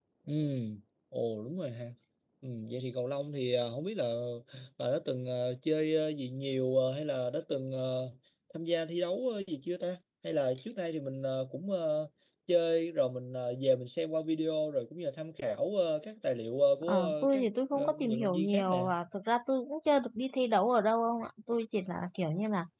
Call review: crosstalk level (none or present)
present